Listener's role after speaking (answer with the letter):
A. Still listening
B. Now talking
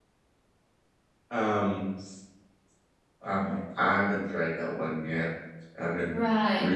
A